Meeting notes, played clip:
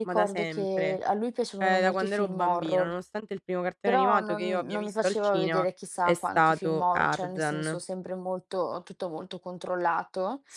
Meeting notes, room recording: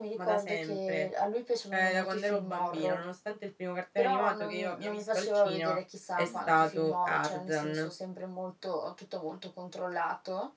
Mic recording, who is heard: both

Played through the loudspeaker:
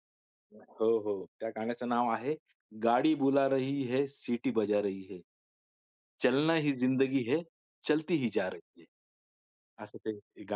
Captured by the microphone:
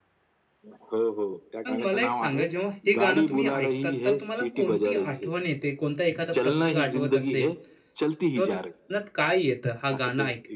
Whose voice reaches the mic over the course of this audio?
both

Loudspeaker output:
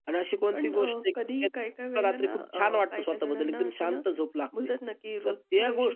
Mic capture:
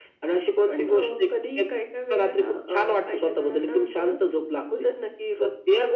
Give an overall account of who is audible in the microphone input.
echo only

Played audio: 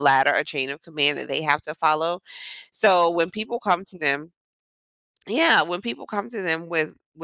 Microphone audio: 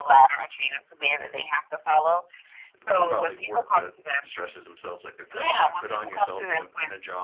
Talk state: both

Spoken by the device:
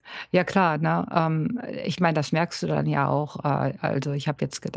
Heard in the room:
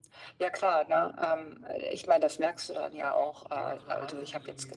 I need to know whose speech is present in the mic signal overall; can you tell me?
both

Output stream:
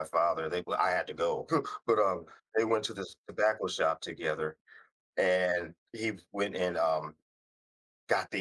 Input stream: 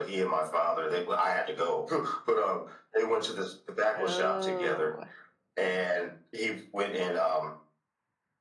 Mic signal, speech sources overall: both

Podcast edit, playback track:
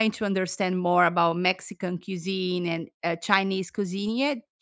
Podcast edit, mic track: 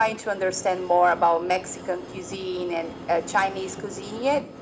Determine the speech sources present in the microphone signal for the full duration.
echo only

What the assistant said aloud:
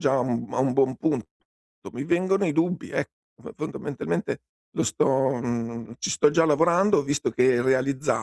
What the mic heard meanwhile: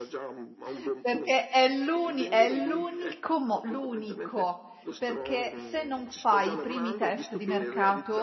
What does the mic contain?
both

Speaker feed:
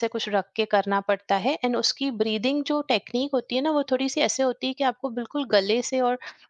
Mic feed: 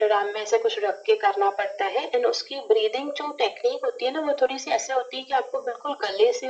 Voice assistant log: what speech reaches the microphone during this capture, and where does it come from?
echo only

